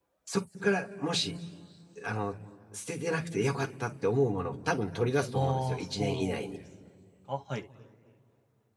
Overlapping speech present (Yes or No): Yes